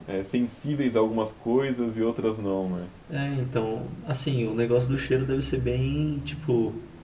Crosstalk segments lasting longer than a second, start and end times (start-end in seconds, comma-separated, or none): none